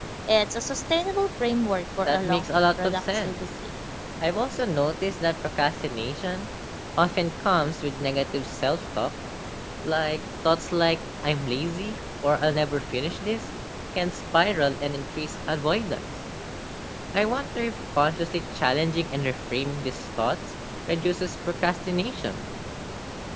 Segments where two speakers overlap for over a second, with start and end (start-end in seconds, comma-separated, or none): 2.0-3.4